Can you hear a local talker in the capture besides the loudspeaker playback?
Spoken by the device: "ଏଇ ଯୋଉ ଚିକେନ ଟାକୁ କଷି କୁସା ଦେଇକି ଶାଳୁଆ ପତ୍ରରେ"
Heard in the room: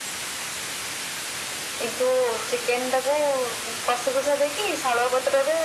No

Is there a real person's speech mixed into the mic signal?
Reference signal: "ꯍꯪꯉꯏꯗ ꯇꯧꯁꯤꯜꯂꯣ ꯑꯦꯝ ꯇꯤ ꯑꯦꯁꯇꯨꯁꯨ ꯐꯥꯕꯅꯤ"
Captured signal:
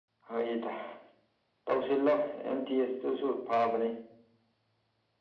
No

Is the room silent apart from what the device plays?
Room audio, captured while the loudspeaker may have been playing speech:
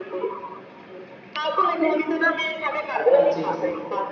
No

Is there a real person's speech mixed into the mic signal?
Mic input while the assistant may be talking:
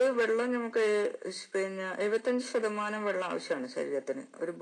No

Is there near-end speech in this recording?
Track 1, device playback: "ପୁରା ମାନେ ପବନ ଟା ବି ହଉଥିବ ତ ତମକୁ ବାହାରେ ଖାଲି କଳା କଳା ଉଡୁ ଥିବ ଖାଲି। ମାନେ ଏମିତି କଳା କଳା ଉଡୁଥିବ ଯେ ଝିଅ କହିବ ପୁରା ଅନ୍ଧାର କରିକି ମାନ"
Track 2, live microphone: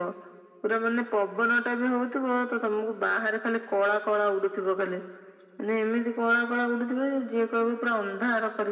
No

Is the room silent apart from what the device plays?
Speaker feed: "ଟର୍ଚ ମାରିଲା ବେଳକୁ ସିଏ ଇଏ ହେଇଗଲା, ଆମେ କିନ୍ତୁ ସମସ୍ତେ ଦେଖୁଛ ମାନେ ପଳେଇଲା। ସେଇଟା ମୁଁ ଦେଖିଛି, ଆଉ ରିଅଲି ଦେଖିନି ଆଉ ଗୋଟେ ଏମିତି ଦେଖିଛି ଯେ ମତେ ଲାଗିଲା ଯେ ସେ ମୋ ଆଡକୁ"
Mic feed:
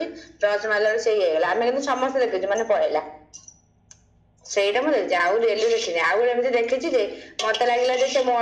Yes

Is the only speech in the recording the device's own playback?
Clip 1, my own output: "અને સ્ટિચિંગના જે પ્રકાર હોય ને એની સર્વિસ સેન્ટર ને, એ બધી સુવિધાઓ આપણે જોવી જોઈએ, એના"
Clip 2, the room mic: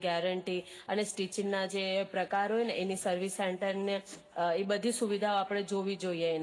Yes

